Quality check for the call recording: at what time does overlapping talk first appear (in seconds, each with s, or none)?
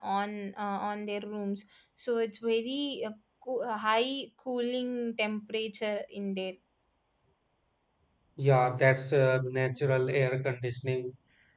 none